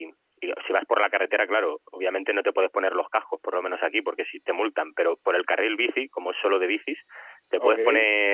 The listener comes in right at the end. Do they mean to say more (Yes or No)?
No